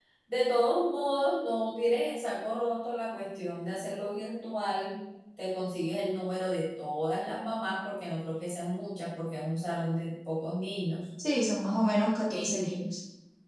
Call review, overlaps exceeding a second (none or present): none